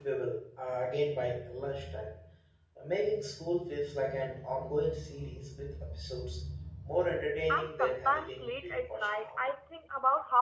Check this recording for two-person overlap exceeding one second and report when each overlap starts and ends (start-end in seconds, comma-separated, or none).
7.5-9.4